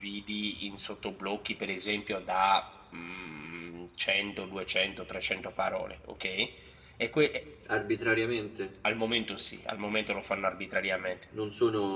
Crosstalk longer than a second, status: none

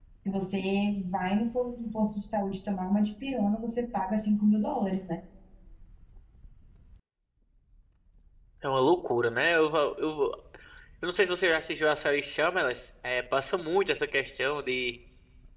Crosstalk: none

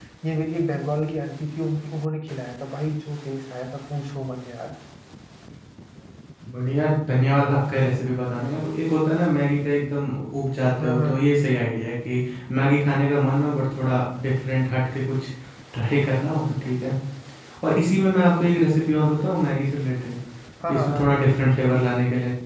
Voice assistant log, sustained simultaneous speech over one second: none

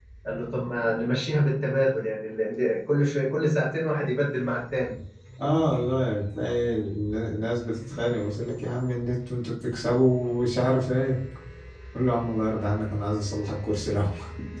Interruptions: none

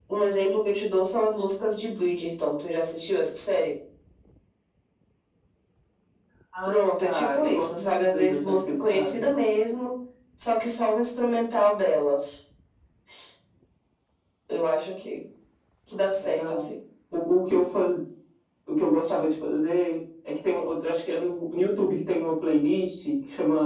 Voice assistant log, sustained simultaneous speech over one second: present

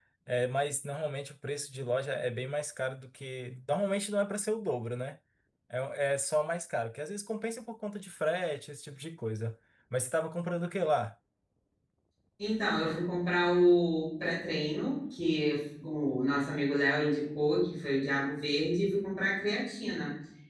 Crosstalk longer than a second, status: none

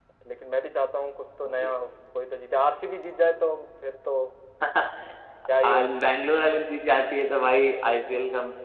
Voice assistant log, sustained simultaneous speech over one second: none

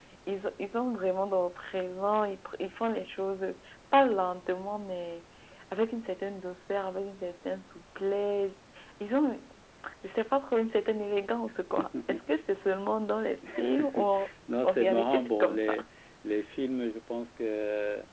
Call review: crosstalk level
present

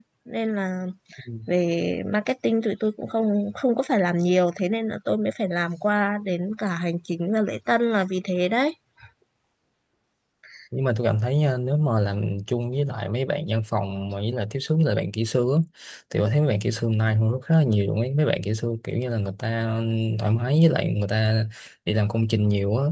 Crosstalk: none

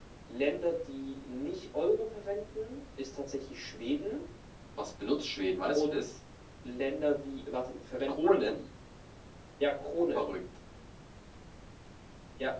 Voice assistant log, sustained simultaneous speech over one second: none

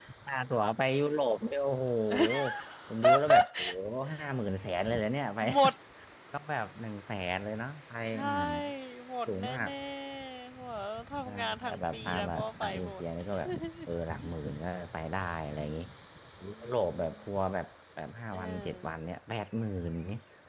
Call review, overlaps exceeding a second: present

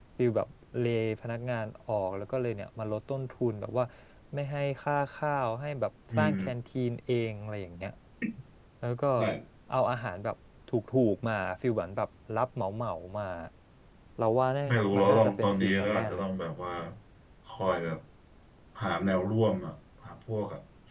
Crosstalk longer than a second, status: present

